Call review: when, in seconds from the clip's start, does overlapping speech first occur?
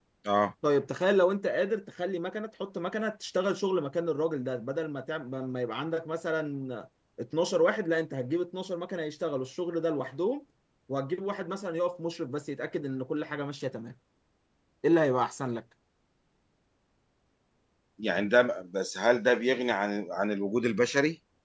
none

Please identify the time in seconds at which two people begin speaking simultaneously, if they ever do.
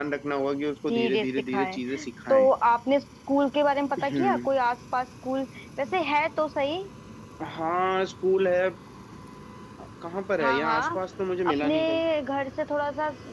0.8 s

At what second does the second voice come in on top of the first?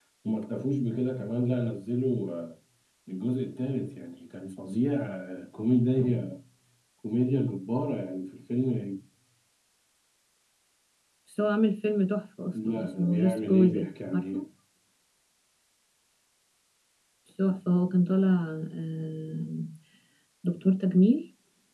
12.5 s

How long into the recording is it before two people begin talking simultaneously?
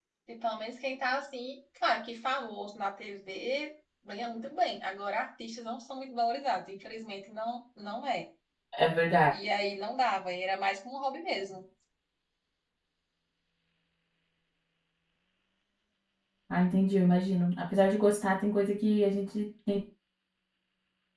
none

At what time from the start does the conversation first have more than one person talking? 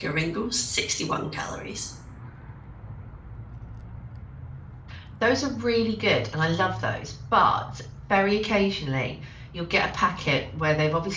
none

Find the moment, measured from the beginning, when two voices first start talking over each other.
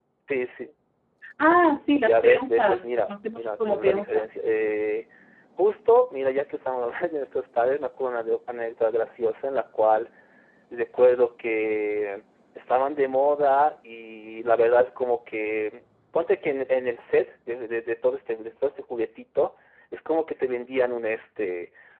2.0 s

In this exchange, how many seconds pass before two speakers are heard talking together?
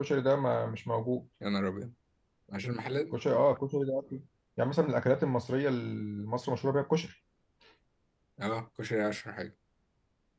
none

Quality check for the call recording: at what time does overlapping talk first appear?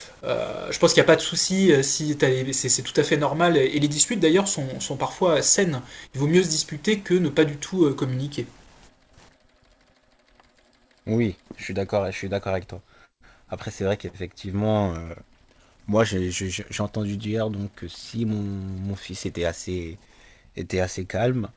none

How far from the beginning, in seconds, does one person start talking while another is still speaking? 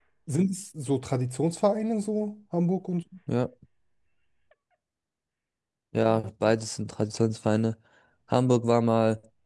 none

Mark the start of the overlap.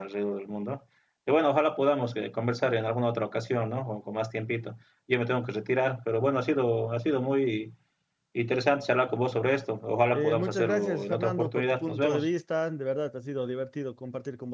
10.1 s

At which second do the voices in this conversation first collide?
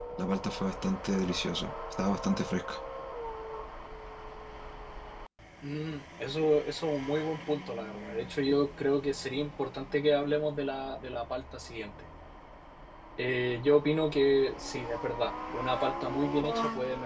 none

